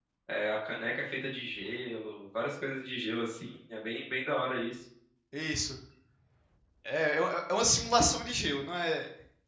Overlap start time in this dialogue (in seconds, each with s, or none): none